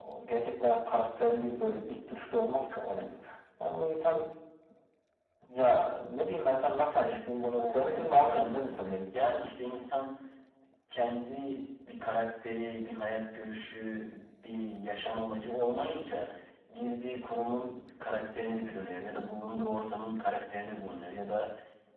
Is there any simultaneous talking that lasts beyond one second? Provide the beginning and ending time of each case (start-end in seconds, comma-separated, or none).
6.9-8.9